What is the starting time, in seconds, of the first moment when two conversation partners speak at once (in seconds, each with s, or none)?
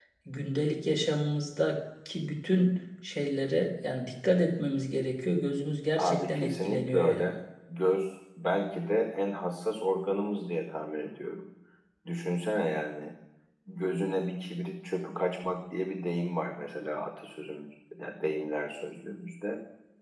6.0 s